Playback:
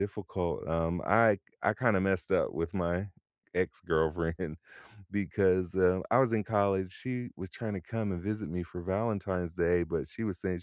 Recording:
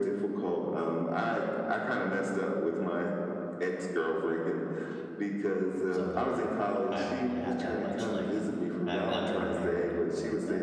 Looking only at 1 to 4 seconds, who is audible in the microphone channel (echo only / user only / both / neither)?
echo only